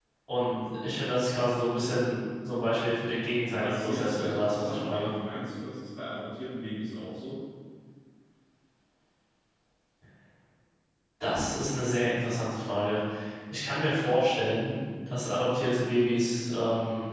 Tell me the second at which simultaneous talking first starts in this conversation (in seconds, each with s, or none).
3.5 s